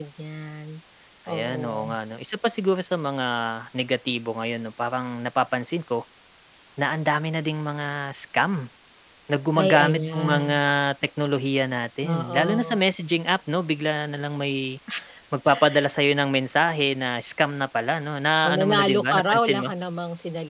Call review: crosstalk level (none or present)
present